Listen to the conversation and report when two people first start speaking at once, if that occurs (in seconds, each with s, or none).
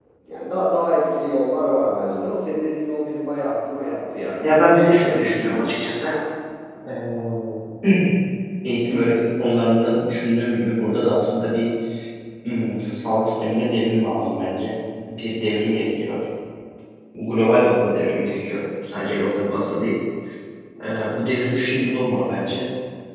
4.4 s